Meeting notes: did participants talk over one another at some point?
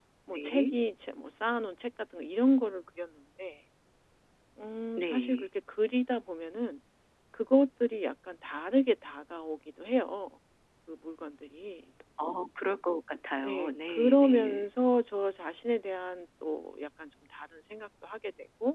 Yes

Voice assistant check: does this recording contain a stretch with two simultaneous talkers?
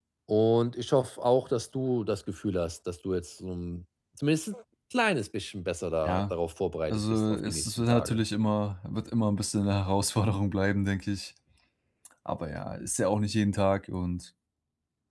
Yes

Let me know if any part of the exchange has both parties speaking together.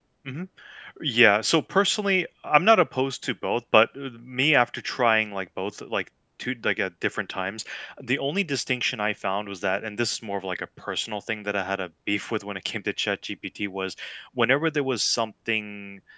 No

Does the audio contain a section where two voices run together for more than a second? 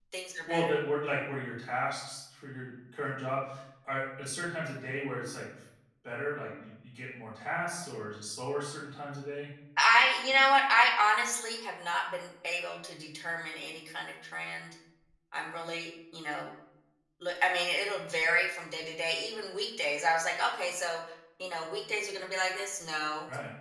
No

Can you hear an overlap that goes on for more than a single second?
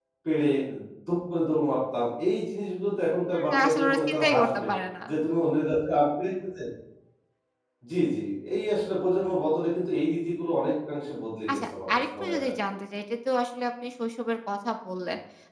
Yes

